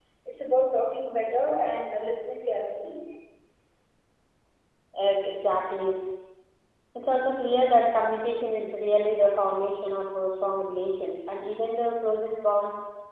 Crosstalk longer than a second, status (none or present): none